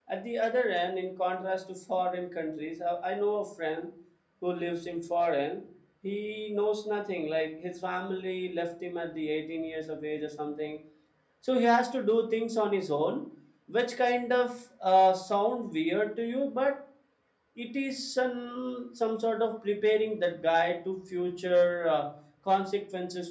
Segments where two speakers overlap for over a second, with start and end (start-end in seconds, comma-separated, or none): none